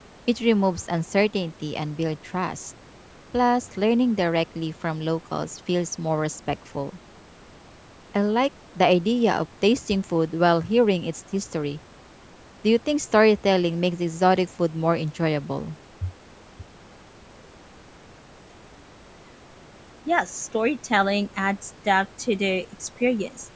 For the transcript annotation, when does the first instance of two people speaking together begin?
none

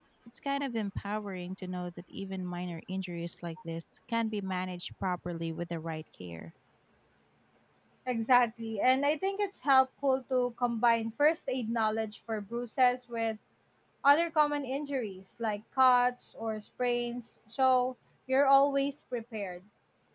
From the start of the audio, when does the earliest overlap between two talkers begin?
none

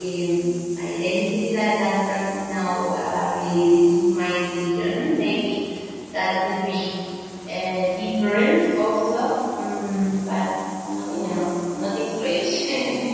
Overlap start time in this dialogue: none

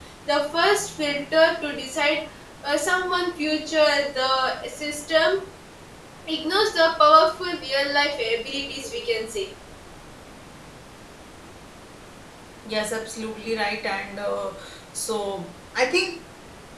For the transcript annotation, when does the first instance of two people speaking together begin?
none

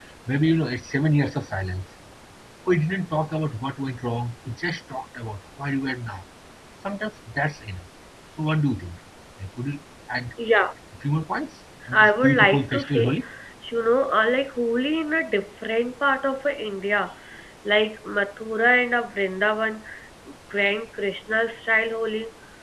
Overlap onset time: 11.8 s

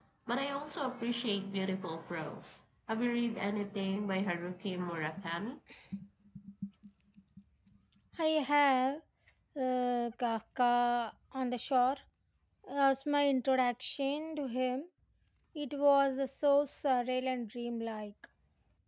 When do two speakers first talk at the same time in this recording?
none

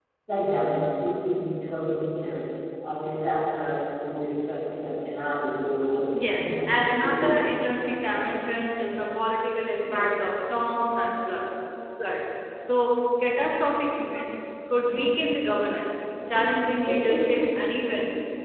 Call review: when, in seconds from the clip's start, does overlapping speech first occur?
6.1 s

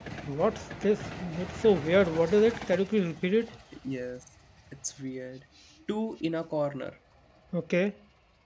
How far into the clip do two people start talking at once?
none

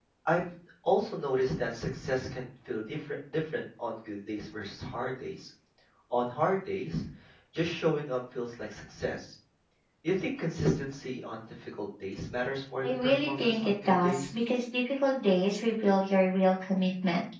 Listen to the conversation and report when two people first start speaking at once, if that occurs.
12.8 s

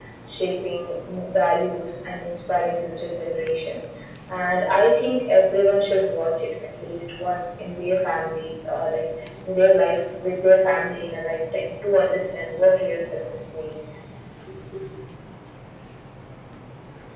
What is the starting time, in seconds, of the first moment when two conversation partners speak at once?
none

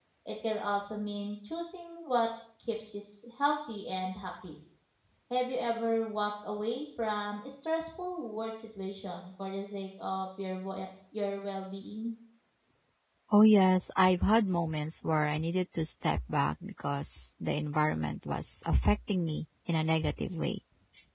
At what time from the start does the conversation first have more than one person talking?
none

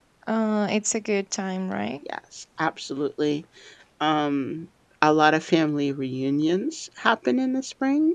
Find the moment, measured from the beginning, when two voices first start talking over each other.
none

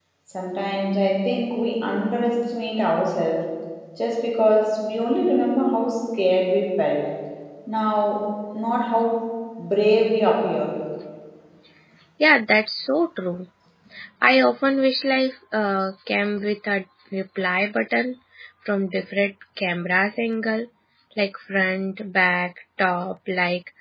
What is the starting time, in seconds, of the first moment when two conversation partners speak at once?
none

